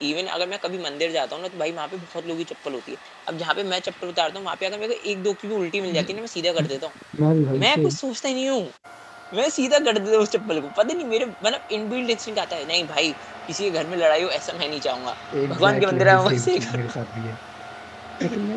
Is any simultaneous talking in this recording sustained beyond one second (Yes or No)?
Yes